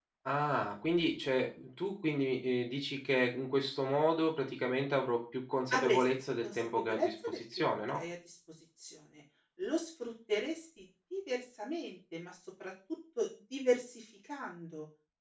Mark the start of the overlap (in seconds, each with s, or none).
5.7 s